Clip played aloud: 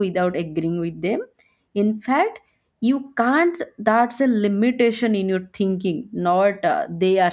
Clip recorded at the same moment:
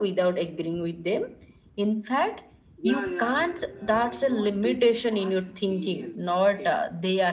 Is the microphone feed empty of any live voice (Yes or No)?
No